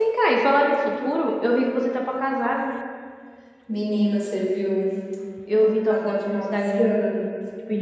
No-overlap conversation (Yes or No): No